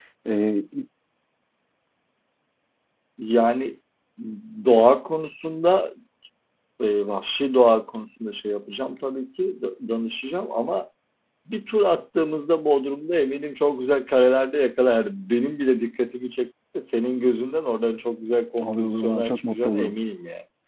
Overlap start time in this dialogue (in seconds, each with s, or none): 18.6 s